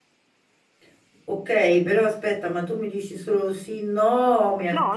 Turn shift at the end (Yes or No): Yes